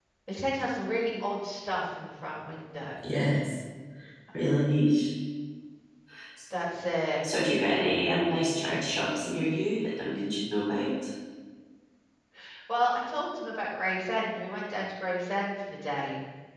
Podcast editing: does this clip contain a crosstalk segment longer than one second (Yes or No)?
No